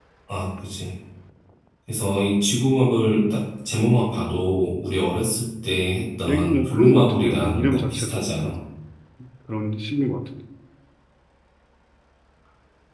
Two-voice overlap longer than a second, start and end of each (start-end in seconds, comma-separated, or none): 6.3-8.5